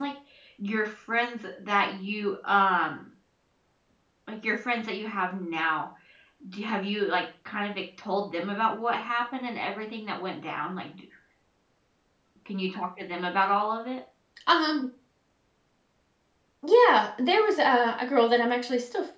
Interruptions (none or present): none